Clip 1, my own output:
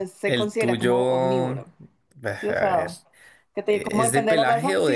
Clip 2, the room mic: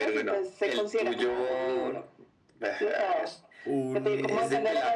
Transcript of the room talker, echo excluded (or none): Un.